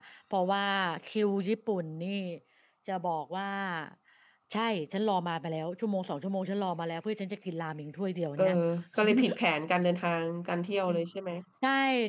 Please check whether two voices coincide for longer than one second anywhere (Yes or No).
No